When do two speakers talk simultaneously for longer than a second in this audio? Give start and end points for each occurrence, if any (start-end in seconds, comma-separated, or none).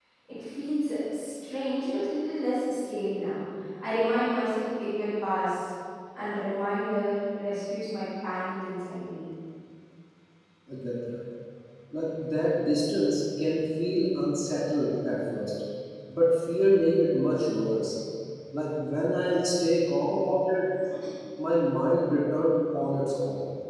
none